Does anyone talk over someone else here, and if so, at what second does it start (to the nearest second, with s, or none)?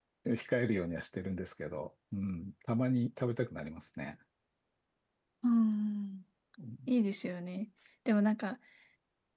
none